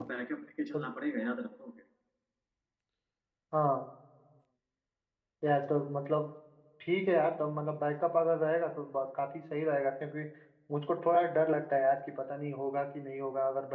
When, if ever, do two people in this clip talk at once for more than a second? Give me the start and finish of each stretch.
none

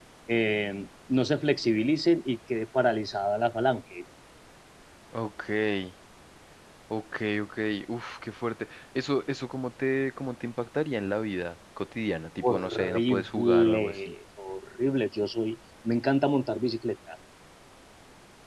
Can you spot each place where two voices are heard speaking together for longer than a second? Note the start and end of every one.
12.4-14.1

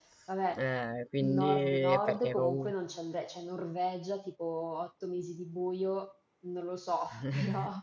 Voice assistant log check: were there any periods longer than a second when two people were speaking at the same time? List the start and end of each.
1.2-2.7

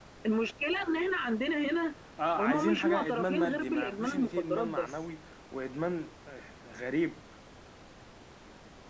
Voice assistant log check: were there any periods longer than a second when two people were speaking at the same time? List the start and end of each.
2.4-4.9

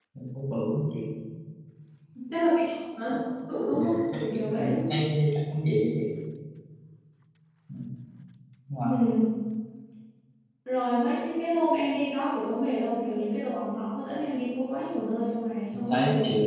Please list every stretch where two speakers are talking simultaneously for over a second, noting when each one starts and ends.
3.7-5.0

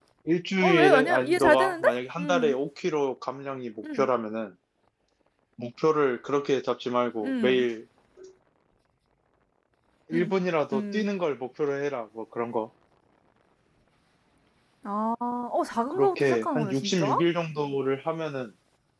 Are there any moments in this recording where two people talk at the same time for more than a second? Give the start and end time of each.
0.6-2.5, 15.9-17.2

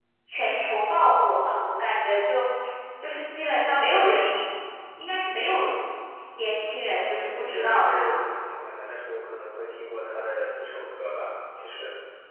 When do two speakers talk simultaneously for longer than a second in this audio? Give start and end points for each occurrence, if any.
6.3-8.1

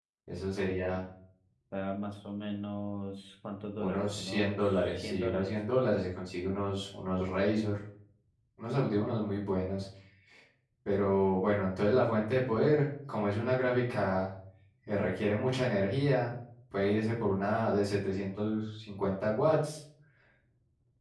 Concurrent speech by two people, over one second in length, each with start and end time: 3.8-5.5

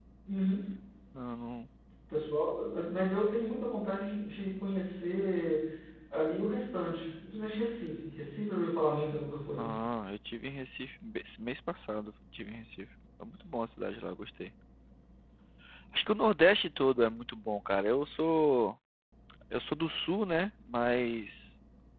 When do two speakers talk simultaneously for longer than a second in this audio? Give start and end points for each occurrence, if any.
none

